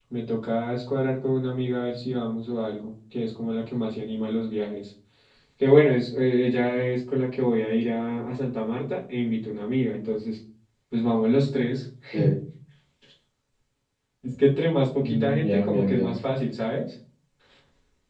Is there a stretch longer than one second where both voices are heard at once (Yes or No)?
Yes